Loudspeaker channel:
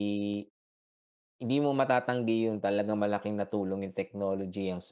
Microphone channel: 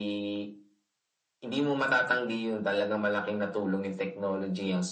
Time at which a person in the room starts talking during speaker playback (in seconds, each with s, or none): none